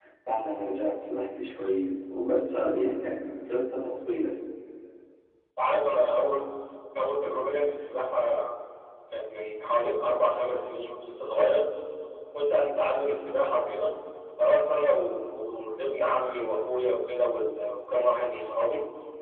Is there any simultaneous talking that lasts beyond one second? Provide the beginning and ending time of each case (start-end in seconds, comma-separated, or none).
none